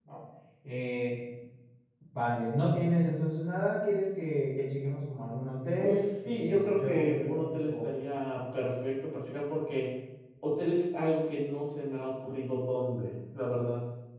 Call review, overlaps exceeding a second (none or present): present